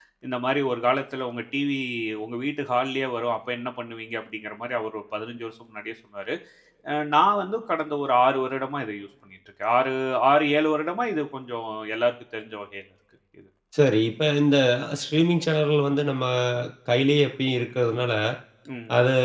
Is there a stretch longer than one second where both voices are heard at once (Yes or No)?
No